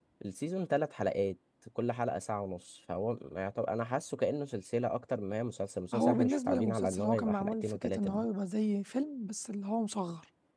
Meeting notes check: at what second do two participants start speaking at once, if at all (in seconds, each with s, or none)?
5.9 s